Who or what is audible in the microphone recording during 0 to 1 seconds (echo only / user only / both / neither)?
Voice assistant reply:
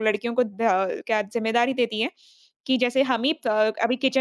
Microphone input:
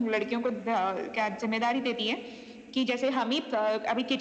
echo only